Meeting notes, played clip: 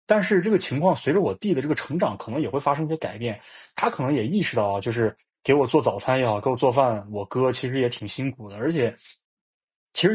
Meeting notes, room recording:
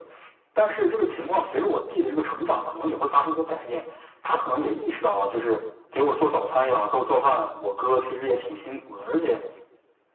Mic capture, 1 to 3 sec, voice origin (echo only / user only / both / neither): echo only